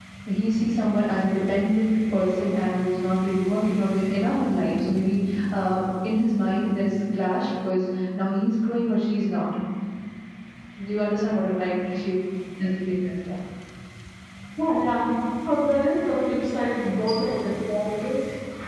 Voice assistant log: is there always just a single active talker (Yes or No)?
Yes